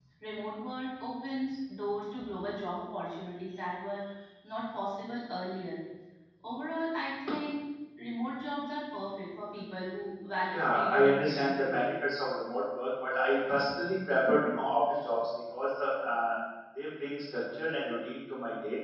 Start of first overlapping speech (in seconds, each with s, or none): 10.5 s